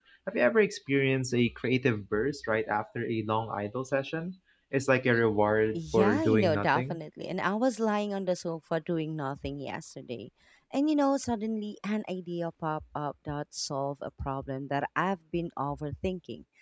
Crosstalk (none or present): present